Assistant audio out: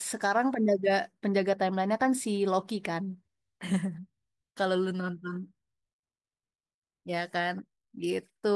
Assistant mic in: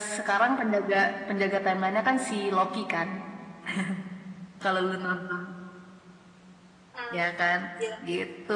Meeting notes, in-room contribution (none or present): present